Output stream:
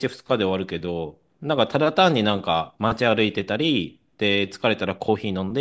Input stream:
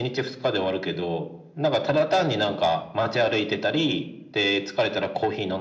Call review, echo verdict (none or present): present